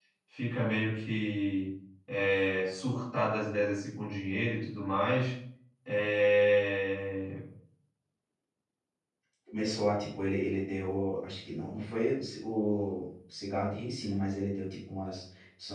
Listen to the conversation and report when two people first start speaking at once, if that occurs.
none

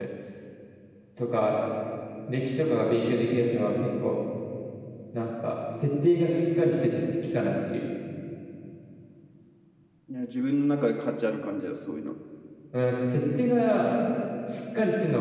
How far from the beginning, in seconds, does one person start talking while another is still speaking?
none

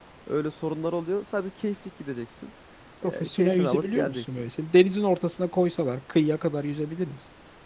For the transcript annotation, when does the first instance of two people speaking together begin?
3 s

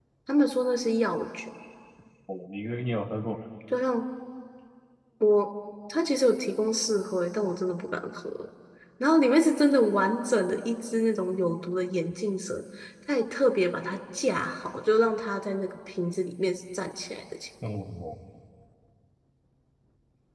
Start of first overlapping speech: none

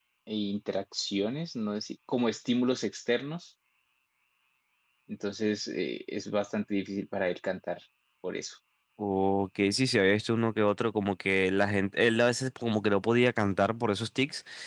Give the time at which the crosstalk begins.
none

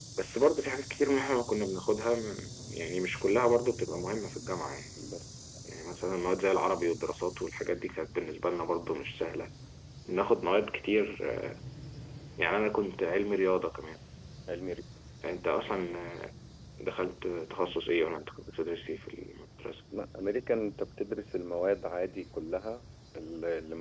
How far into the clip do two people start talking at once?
none

